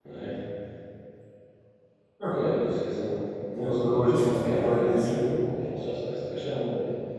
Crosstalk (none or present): present